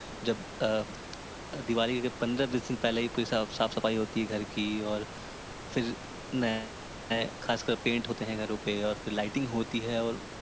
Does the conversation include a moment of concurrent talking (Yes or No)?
No